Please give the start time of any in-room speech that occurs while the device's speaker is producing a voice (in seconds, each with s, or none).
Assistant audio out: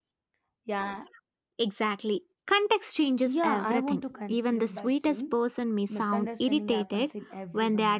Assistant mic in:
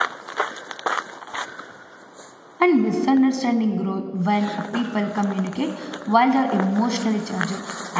2.6 s